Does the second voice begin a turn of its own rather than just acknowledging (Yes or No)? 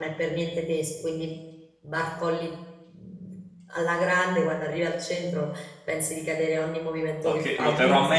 Yes